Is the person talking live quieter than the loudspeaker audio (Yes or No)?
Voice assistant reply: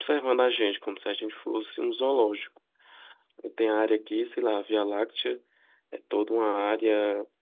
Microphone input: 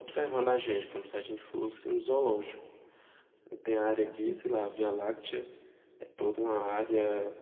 Yes